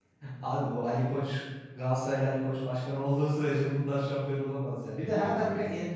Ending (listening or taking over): listening